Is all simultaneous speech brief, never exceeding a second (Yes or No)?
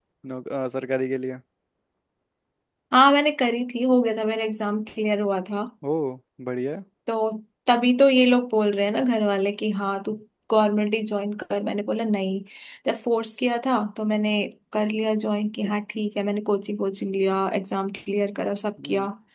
Yes